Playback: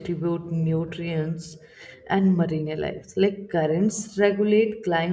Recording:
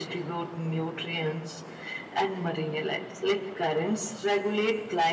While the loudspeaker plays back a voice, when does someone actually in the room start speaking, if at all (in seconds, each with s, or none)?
none